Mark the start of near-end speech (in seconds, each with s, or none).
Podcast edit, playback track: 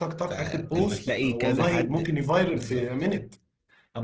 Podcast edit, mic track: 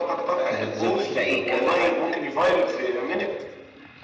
0.5 s